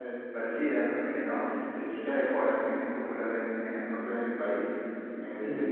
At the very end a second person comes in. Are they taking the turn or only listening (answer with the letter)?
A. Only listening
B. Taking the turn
A